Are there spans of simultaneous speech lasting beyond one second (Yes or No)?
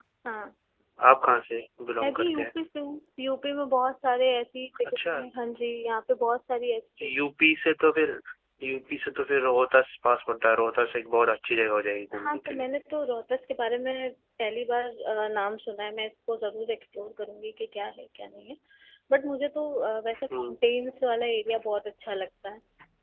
No